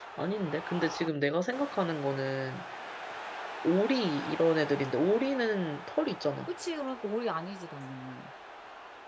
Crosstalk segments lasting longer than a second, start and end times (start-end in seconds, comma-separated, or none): none